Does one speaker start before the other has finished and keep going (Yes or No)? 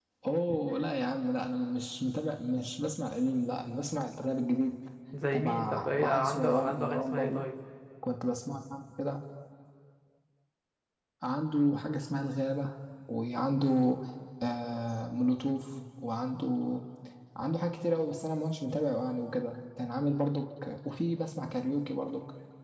Yes